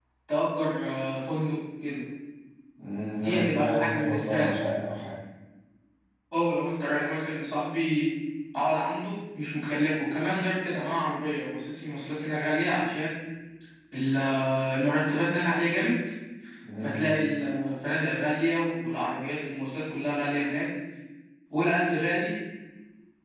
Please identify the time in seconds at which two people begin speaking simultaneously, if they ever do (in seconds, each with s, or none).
3.2 s